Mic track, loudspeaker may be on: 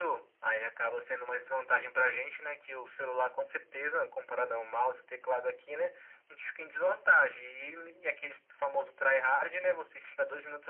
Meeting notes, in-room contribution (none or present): none